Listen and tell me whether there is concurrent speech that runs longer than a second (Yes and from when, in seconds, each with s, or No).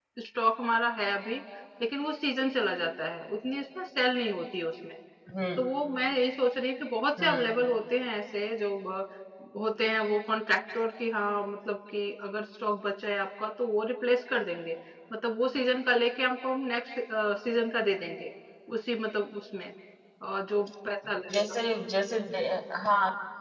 No